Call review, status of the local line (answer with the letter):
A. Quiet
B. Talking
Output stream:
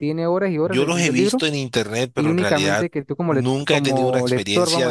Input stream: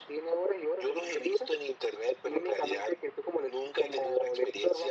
A